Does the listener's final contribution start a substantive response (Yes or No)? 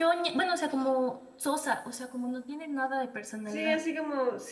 Yes